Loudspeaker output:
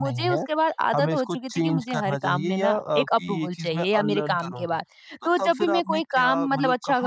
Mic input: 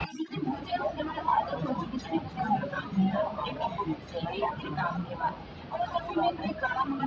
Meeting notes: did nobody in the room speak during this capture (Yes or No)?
Yes